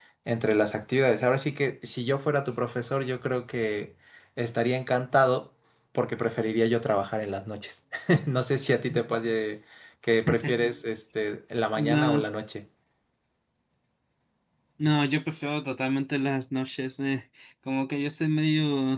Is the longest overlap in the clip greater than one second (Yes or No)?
No